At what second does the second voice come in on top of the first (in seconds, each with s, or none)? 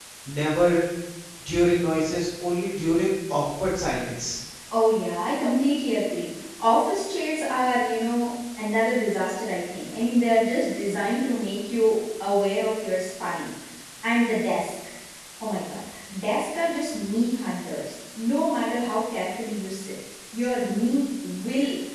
none